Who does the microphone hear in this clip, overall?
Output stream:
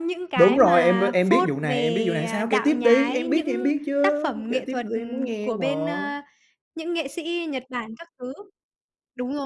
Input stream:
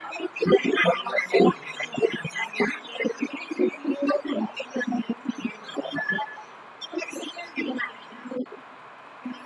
echo only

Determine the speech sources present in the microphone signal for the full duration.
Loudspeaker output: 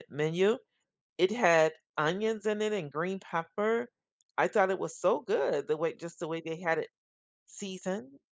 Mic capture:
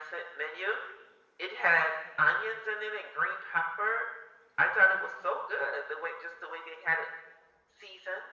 echo only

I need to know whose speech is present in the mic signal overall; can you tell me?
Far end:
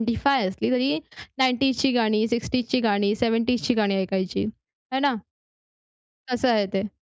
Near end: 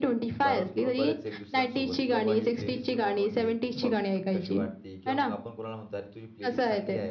both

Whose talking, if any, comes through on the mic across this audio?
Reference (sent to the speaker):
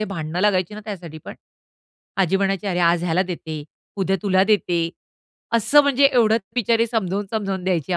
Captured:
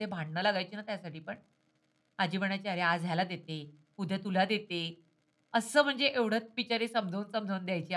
echo only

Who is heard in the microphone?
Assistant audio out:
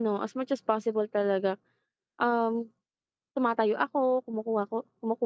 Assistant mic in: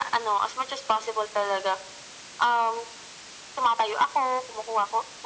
echo only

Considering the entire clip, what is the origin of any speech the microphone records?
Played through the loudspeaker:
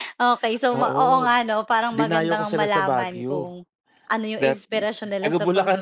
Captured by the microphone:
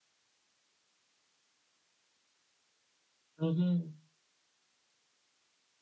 user only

